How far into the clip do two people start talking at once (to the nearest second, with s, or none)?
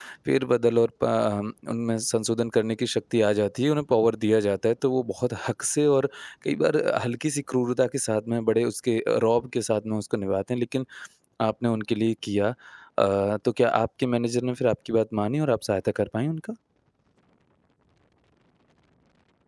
none